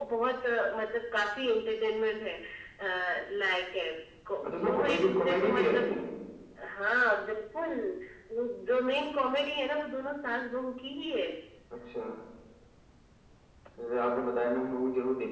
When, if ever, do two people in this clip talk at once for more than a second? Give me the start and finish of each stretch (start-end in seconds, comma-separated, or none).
4.4-5.9